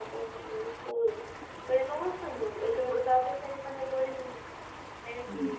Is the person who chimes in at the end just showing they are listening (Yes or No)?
Yes